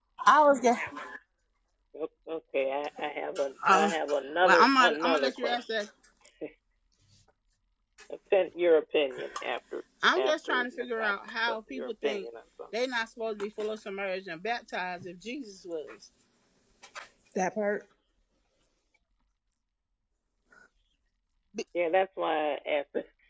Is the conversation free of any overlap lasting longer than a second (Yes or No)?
No